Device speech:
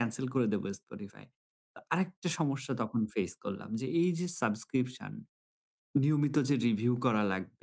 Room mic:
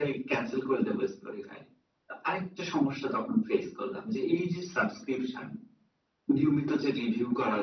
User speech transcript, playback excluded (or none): none